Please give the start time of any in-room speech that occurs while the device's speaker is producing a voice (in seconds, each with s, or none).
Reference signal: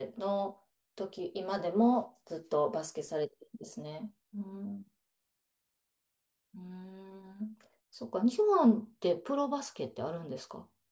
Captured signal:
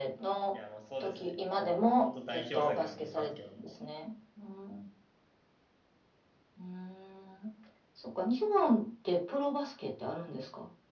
0.5 s